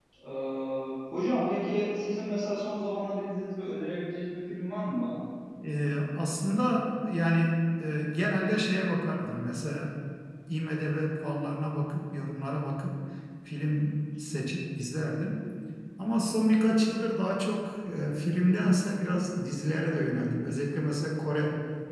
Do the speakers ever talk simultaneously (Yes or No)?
No